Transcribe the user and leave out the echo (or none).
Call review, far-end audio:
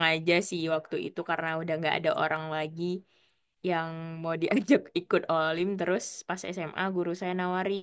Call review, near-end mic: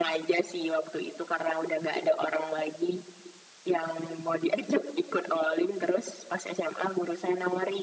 none